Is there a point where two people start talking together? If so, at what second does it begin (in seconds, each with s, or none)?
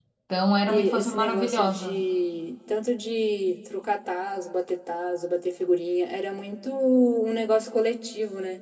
0.7 s